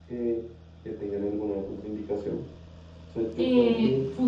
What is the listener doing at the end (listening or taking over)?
taking over